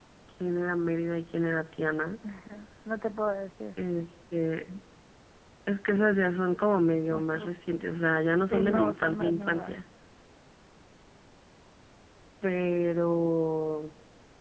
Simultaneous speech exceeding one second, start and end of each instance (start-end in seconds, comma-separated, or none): 8.5-9.8